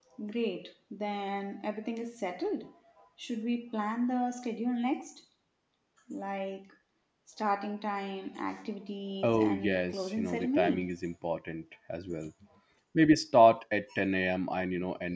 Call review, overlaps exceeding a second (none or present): present